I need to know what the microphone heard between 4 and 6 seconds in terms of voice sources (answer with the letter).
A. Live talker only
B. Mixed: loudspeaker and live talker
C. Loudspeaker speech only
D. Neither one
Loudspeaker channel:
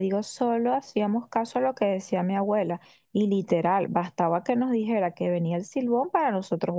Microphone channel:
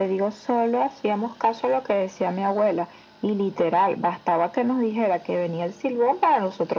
C